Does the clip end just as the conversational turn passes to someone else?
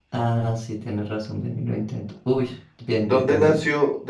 Yes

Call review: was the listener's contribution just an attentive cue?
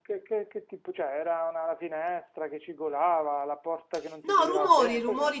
No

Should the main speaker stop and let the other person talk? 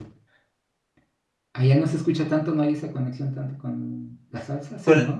Yes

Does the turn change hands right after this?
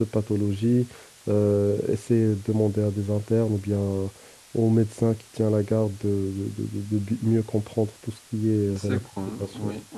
Yes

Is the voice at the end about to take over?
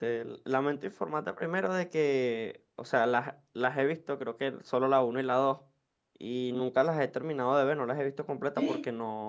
No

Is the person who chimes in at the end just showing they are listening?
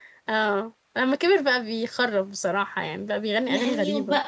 No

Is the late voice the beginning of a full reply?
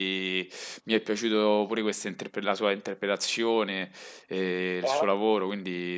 No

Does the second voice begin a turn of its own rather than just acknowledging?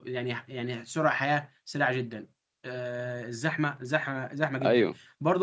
No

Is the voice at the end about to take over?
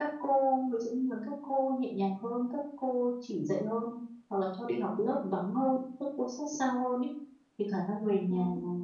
No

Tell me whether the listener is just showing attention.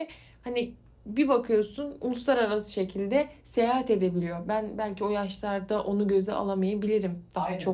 Yes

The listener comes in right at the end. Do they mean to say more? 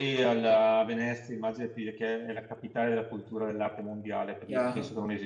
No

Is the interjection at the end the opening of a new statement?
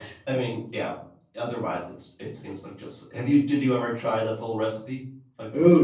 Yes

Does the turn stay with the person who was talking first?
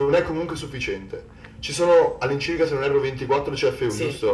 No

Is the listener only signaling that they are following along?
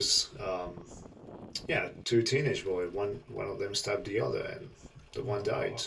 No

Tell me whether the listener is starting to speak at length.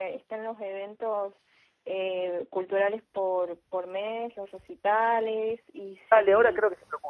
Yes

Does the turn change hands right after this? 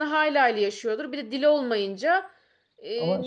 No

